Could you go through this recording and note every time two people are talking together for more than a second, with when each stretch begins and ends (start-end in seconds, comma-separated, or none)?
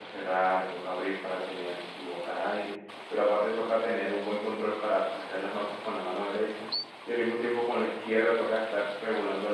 none